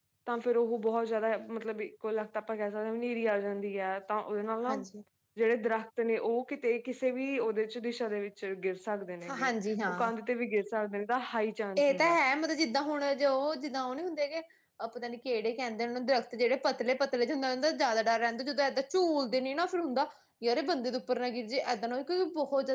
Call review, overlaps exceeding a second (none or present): none